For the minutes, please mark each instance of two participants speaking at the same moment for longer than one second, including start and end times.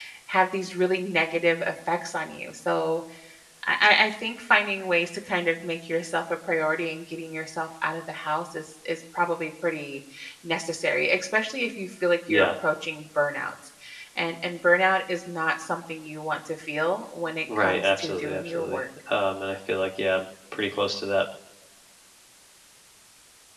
17.6-18.8

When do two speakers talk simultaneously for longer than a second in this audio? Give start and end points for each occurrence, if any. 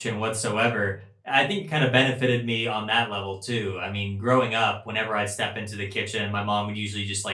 none

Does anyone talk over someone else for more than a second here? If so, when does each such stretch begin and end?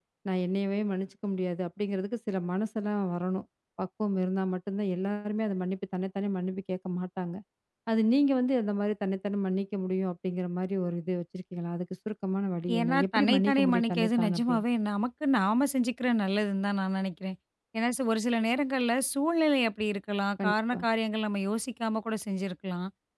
12.8-14.6

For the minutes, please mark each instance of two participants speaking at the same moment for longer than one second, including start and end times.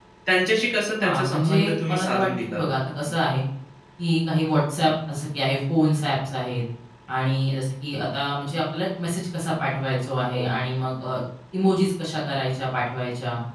1.0-2.6

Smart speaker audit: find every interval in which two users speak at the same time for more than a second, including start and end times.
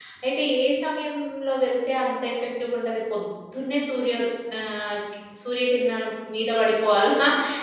none

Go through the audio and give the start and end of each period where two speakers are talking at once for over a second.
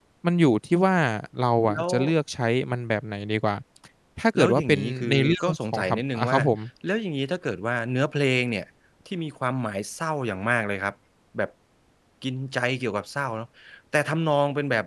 4.3-6.4

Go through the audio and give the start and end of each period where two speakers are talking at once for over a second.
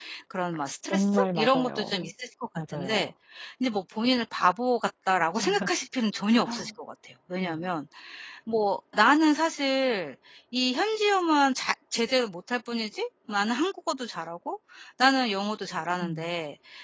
0.9-2.1

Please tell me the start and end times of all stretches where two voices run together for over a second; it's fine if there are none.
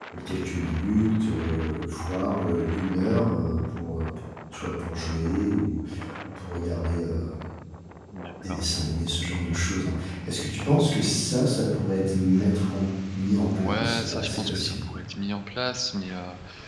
13.6-14.9

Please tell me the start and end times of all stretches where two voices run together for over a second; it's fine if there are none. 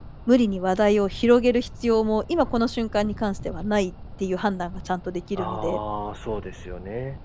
none

